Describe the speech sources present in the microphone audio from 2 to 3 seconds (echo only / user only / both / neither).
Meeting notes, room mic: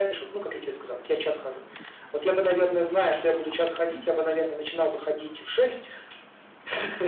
echo only